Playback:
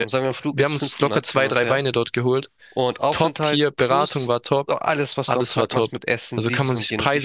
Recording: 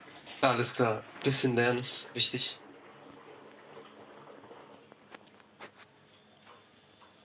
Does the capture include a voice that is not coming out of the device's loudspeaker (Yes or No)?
Yes